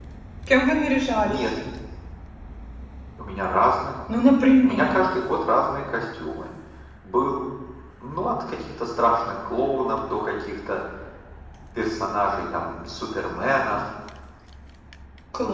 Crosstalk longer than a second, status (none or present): none